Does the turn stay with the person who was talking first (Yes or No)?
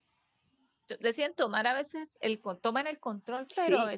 Yes